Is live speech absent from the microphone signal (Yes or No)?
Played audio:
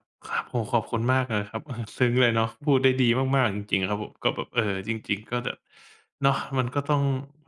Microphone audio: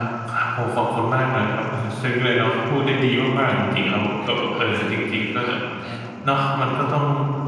No